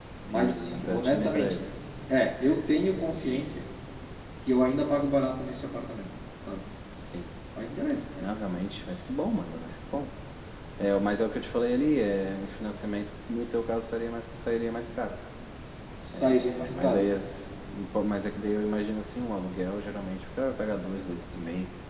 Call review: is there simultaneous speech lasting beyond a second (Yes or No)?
Yes